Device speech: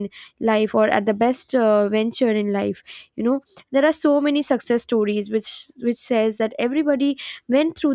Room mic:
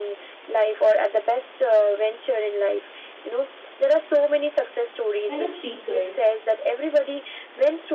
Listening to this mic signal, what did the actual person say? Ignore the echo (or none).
fellow speaker